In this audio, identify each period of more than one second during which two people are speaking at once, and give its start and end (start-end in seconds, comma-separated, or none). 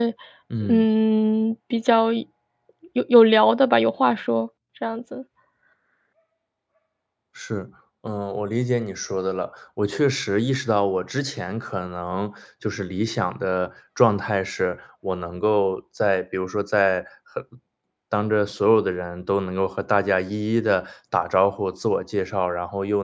none